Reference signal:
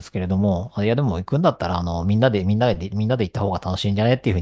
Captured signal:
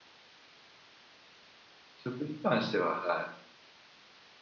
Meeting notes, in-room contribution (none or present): present